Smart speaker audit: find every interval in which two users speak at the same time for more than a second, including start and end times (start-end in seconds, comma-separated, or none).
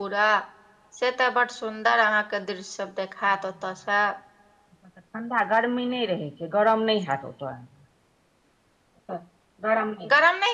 none